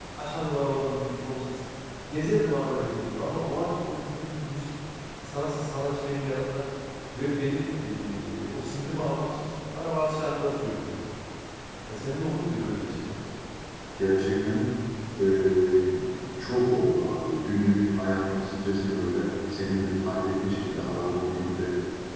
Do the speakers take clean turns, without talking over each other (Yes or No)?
Yes